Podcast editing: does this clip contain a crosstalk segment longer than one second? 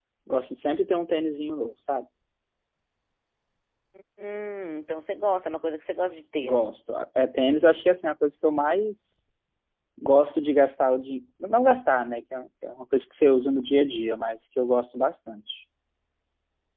No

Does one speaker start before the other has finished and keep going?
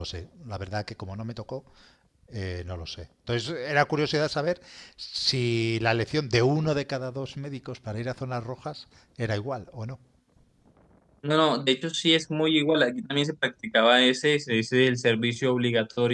No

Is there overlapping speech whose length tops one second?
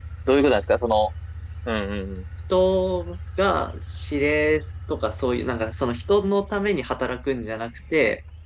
No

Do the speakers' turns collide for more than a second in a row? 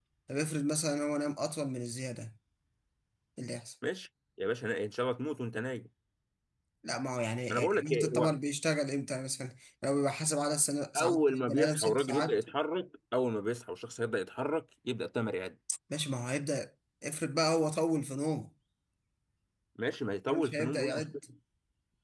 Yes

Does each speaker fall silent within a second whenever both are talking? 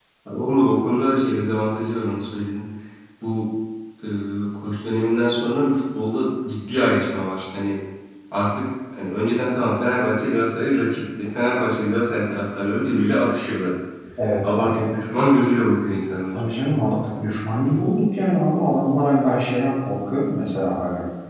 Yes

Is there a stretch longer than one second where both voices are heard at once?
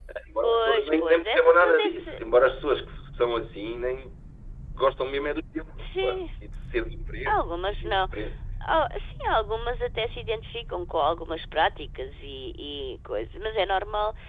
Yes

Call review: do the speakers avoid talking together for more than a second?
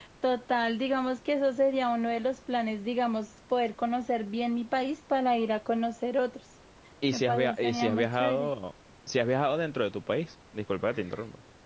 No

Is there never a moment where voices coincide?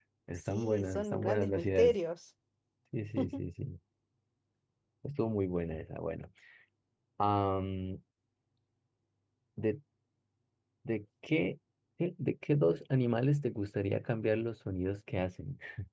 No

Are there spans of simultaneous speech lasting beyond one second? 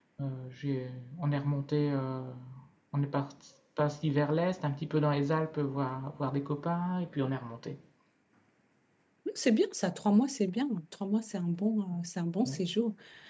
No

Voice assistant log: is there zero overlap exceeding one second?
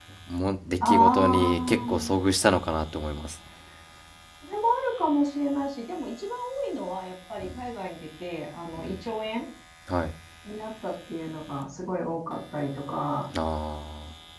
No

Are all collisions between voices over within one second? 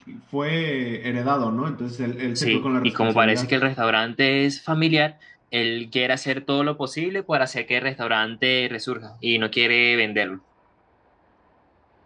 No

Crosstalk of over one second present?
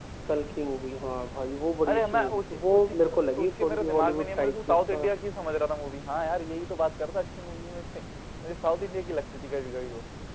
Yes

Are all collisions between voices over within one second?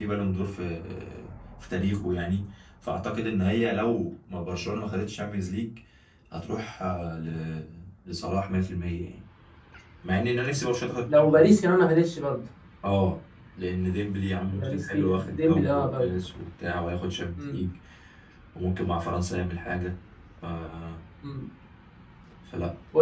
No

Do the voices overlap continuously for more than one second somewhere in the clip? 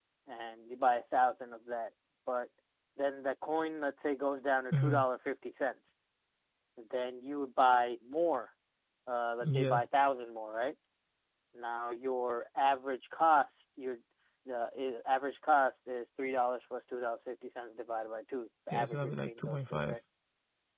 Yes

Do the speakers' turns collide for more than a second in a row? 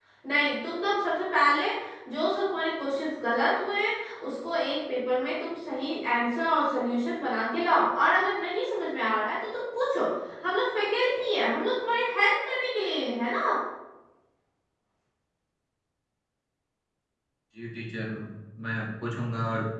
No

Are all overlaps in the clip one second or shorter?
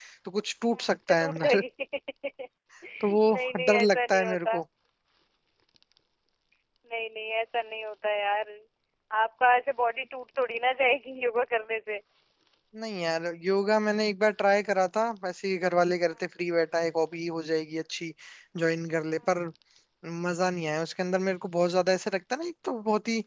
No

